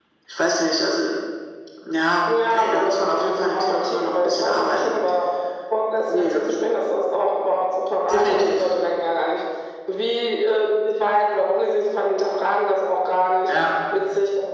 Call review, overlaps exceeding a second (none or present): present